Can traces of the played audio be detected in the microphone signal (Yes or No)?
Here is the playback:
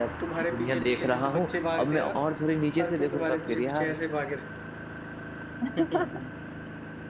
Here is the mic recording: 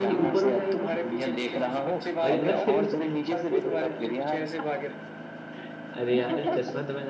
Yes